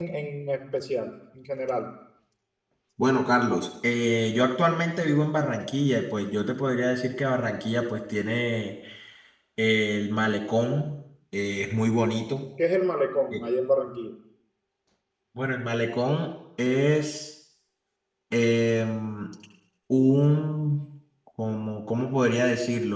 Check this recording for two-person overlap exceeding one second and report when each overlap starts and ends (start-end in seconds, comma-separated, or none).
none